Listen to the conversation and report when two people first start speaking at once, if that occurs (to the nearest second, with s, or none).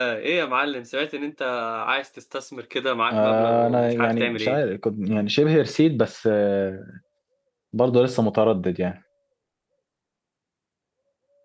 3 s